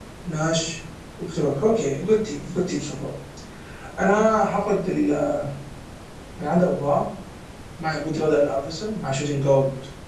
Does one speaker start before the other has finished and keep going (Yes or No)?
No